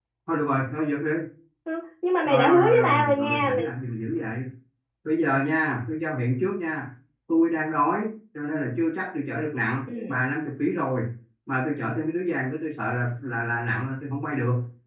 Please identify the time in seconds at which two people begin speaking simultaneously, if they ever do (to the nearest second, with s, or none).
2 s